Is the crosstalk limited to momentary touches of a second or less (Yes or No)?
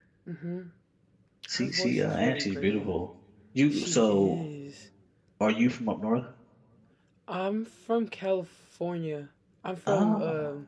No